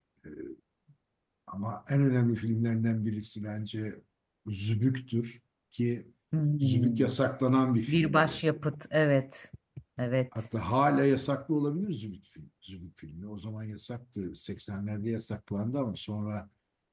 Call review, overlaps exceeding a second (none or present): none